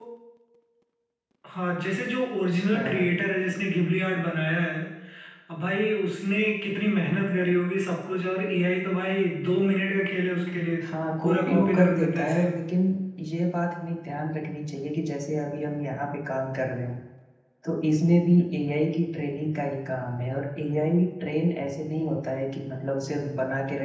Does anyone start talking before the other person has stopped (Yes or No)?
Yes